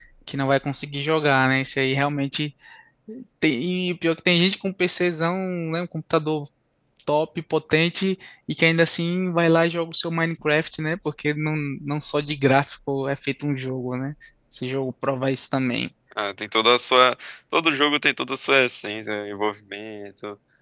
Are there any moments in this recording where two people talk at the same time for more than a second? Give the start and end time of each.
none

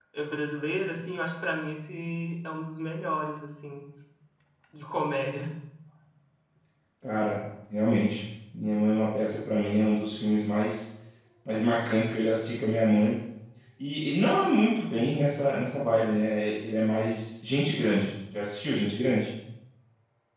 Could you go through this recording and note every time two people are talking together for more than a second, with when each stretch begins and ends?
none

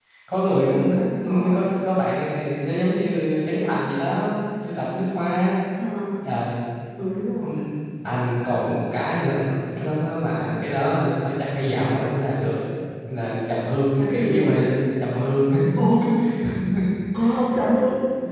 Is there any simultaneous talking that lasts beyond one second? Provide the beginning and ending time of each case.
none

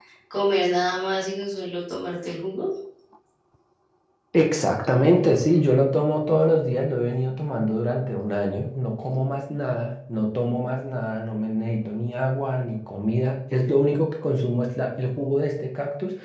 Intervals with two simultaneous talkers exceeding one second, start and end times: none

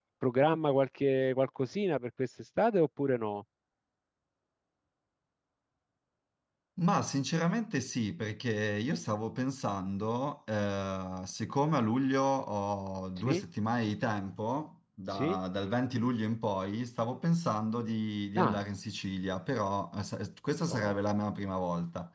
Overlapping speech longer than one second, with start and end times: none

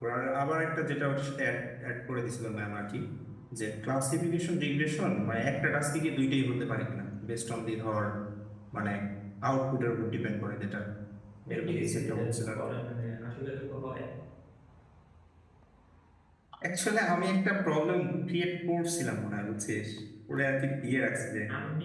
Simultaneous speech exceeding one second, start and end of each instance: 11.5-12.7

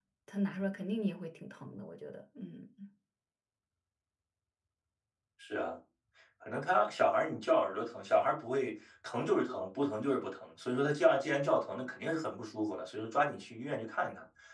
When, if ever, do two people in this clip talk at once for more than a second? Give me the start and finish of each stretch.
none

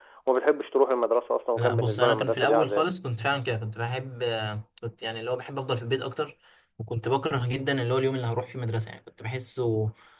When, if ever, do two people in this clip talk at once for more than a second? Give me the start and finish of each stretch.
1.6-2.9

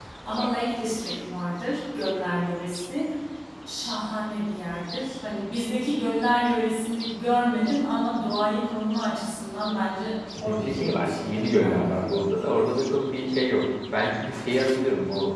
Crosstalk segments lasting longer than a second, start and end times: 10.4-12.3

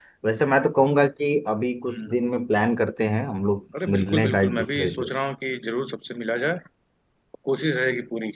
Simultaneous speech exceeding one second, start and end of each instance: 3.9-5.1

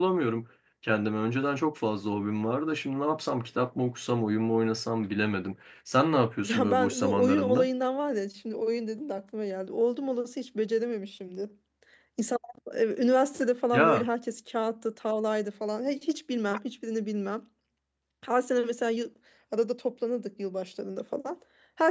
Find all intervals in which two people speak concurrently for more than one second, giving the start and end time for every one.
6.4-7.7

